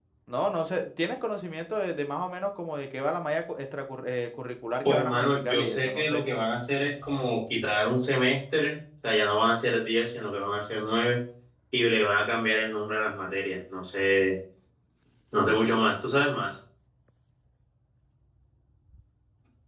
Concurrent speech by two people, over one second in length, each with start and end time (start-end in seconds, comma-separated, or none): 4.8-6.2